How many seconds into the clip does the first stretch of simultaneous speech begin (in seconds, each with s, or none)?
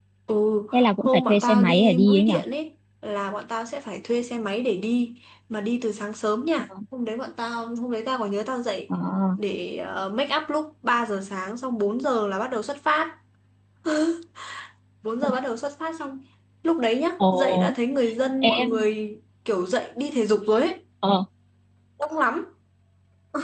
0.7 s